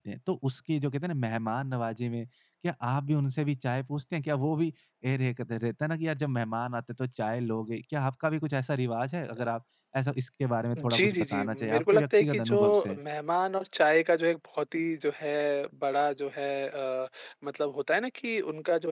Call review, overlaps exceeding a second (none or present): present